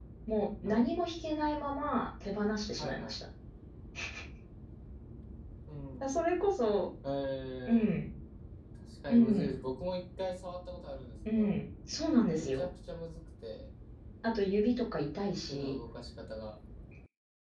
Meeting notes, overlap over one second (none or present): none